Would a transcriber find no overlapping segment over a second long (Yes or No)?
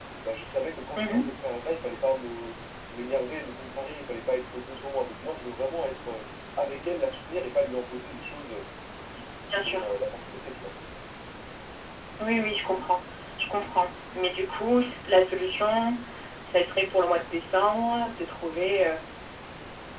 Yes